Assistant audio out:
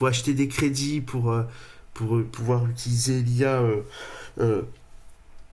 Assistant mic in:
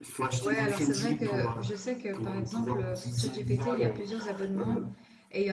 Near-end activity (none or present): present